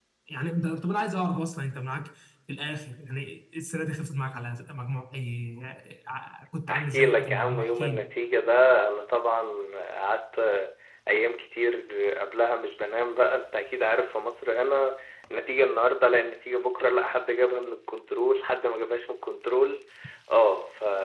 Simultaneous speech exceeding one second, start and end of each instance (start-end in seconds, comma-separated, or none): 6.7-8.1